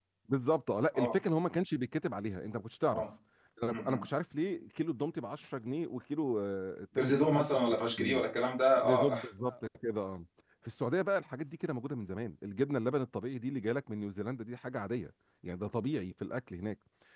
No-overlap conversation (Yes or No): No